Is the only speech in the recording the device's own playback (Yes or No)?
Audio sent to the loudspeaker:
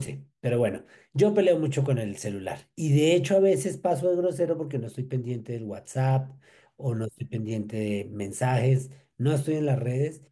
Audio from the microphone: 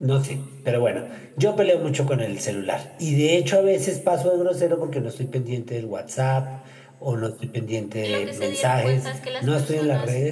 No